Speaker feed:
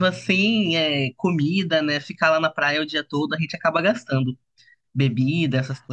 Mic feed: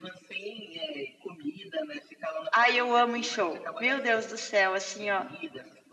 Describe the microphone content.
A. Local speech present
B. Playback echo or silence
A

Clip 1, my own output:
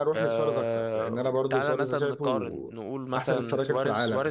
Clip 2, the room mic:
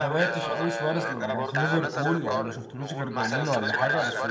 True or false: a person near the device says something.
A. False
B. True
B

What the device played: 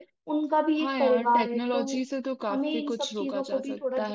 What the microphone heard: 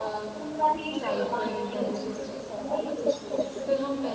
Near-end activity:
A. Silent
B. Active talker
B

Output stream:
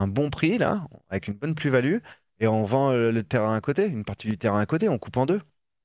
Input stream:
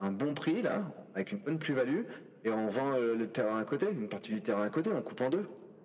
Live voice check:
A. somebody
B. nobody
B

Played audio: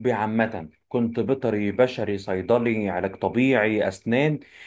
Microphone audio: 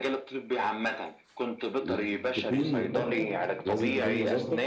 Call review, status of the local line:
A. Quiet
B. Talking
B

